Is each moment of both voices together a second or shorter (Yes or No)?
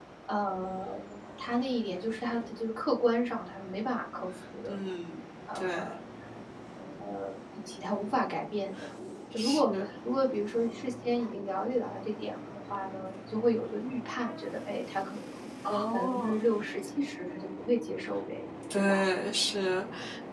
Yes